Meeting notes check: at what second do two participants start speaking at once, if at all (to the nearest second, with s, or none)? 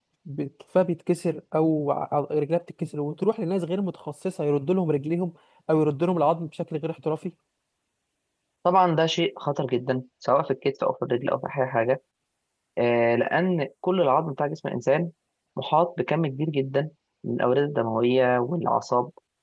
none